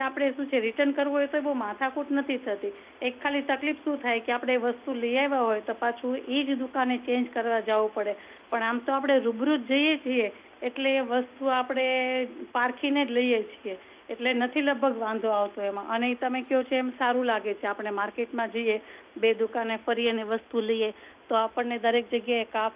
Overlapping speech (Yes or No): No